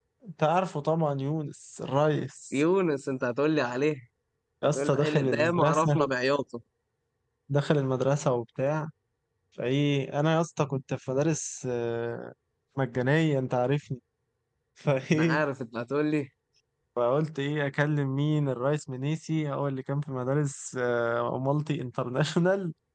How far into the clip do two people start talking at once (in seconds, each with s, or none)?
4.8 s